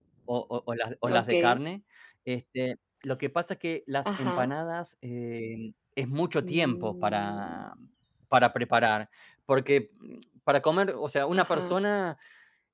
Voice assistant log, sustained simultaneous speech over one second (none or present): present